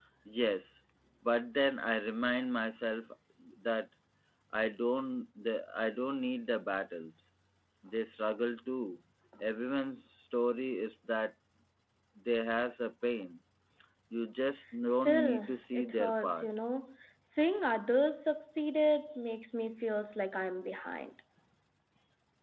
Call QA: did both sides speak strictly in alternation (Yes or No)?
No